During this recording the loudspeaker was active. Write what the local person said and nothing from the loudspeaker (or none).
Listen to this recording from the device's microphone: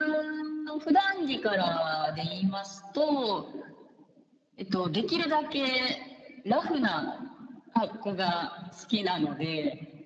none